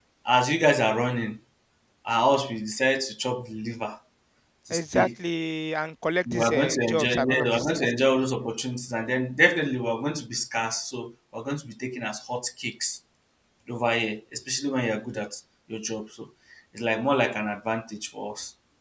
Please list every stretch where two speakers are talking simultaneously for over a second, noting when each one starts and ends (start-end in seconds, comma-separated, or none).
6.3-7.9